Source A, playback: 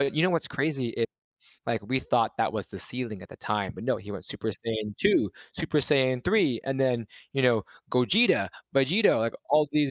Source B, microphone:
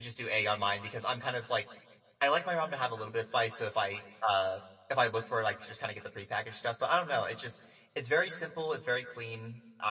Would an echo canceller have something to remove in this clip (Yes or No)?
No